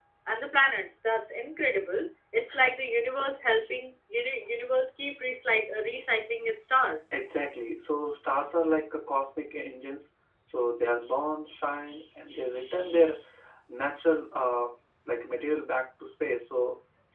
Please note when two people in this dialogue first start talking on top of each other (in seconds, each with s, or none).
none